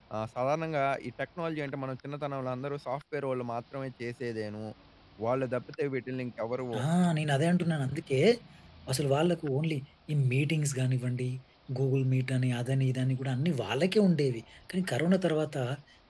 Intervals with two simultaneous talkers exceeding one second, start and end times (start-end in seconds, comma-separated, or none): none